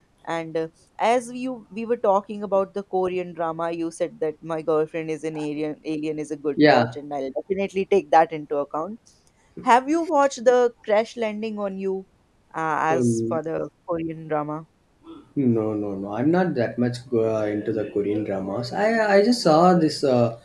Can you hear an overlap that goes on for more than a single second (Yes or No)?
No